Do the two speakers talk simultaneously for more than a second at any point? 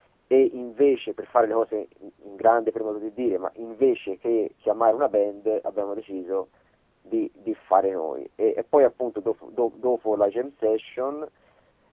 No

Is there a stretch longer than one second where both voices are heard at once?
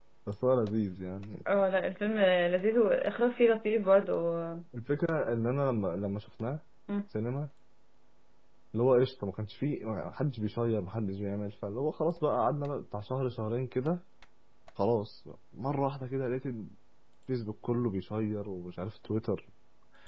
No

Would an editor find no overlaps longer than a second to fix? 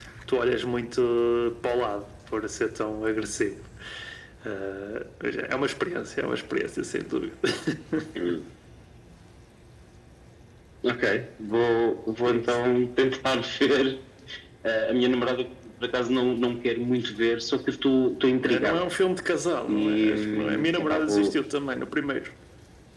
No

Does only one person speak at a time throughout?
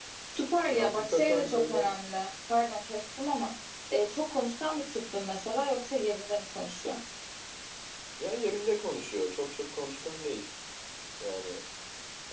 No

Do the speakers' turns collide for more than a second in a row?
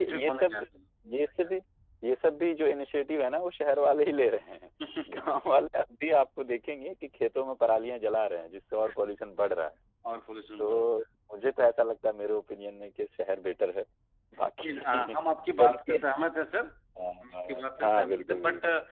Yes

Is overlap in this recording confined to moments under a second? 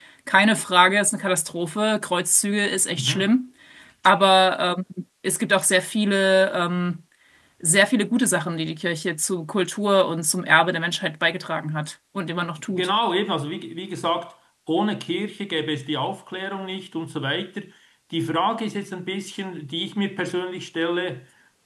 Yes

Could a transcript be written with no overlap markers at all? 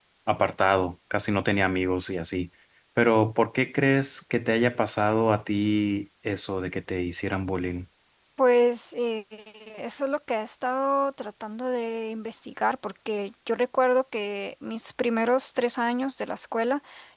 Yes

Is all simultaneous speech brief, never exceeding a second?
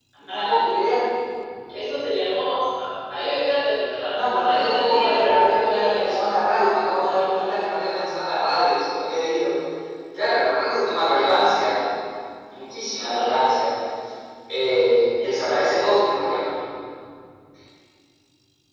No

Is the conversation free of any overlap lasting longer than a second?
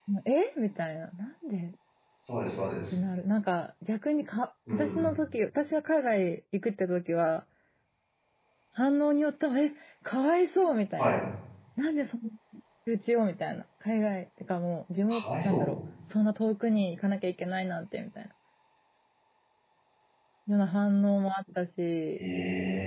Yes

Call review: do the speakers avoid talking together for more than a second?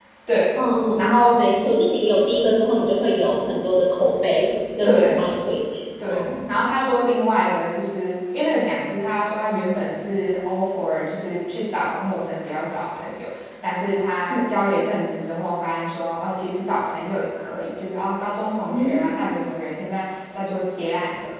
Yes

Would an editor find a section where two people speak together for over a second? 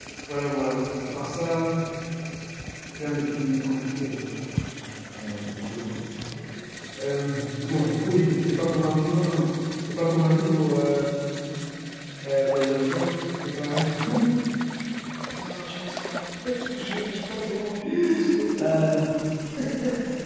No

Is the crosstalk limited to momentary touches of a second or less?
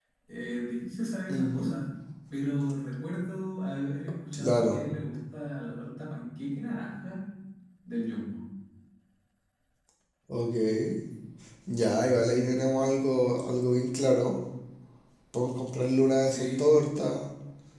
Yes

